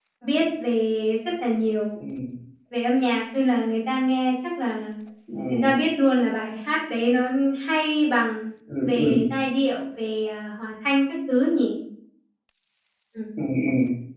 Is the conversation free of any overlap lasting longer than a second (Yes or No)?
Yes